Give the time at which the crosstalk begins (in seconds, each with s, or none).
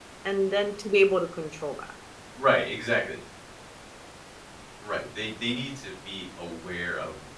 none